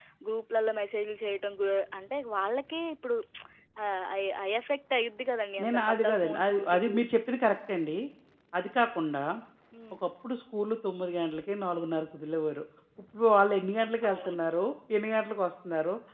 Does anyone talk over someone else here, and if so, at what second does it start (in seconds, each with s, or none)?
5.6 s